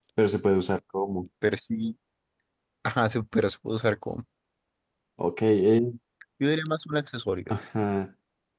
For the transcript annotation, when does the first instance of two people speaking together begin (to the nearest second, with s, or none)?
none